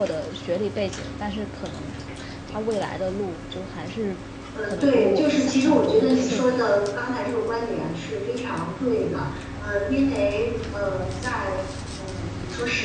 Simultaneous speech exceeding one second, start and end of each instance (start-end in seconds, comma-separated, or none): 4.6-6.8